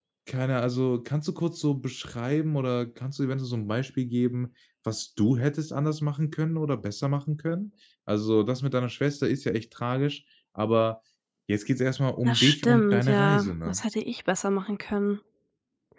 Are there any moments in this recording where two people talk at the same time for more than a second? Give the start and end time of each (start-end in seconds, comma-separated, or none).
12.2-13.8